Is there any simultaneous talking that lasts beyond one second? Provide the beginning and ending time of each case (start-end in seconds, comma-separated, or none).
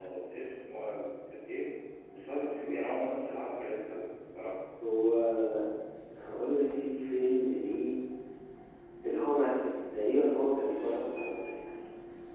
none